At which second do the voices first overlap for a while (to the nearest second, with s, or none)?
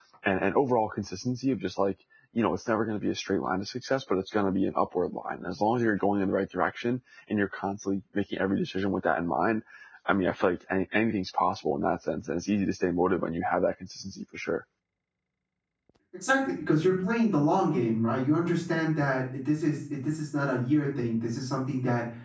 none